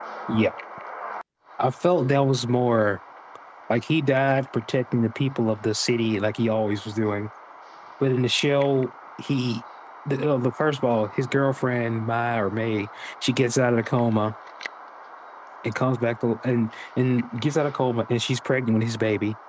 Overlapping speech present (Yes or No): No